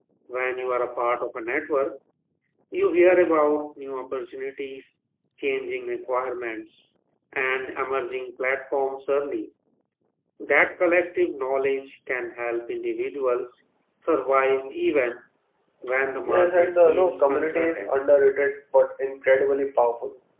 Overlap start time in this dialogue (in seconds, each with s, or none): 16.2 s